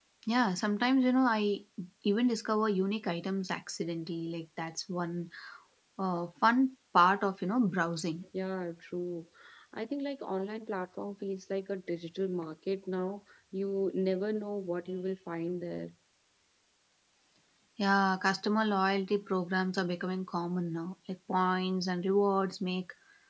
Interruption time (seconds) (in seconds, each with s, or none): none